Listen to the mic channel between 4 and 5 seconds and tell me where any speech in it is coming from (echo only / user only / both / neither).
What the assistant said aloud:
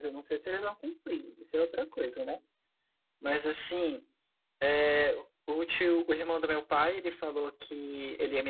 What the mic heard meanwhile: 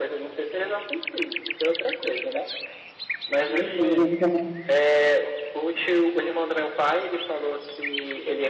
both